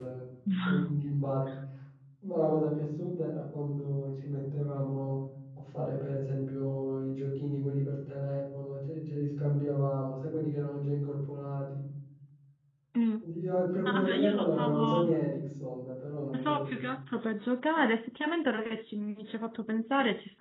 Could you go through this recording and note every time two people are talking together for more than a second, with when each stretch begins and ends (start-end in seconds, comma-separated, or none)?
13.9-15.1